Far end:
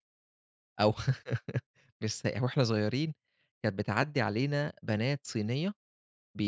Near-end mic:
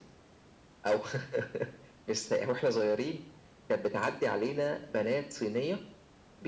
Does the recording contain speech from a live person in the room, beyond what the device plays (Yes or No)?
No